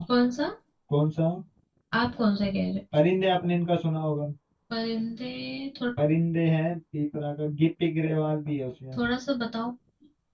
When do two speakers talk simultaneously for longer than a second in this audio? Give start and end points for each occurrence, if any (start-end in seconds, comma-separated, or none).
none